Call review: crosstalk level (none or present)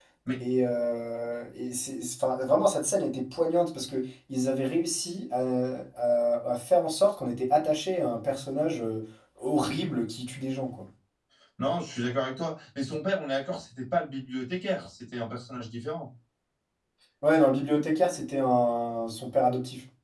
none